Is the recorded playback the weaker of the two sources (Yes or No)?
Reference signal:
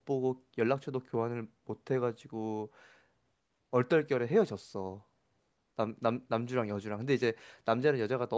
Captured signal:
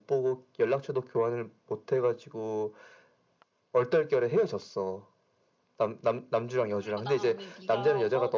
No